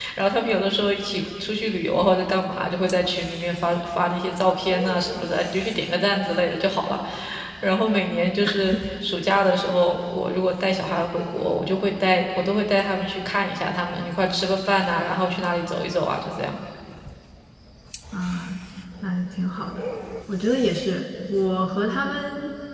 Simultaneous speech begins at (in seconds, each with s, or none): none